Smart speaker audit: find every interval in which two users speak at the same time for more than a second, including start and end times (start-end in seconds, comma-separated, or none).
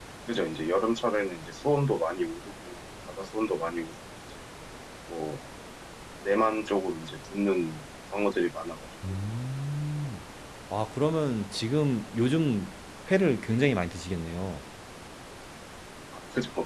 none